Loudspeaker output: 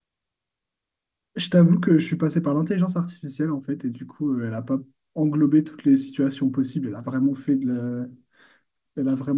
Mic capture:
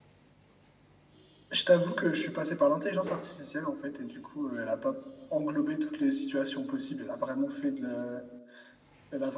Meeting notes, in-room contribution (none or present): none